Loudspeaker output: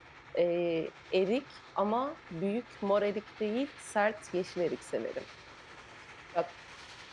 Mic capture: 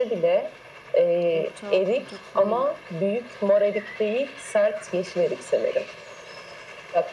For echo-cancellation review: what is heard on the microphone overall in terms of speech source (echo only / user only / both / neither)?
both